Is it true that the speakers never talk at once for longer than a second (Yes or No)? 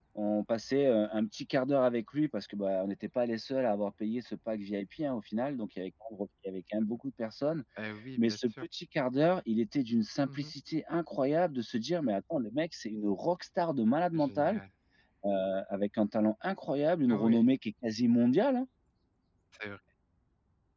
Yes